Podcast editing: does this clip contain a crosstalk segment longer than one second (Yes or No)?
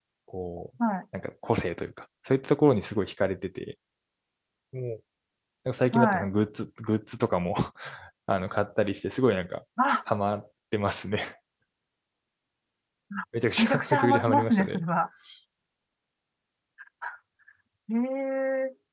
Yes